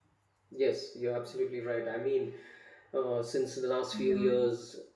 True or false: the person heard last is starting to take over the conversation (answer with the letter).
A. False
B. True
A